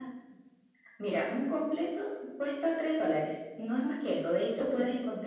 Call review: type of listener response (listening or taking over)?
listening